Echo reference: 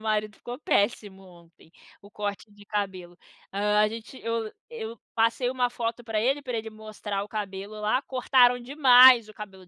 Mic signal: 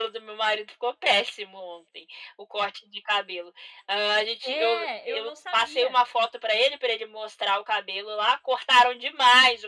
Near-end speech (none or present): present